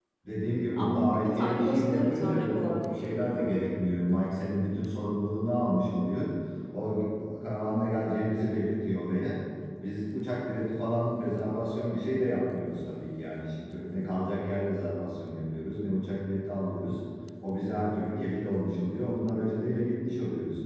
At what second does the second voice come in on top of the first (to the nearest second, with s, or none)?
1 s